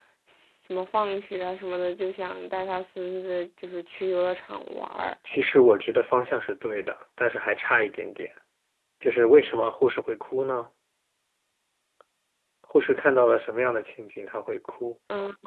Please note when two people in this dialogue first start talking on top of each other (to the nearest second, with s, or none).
none